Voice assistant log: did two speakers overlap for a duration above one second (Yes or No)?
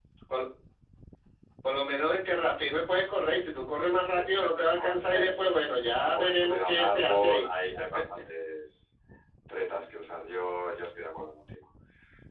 Yes